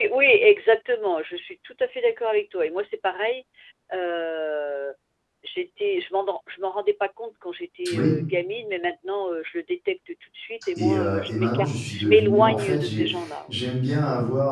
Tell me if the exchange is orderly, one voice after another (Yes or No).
No